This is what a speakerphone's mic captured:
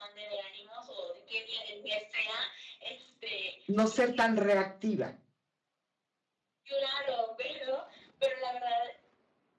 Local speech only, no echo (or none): No ser tan reactiva.